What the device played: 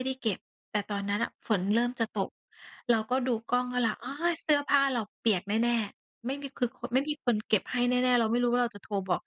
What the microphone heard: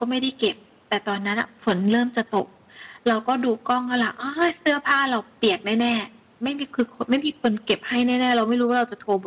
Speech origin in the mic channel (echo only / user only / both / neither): echo only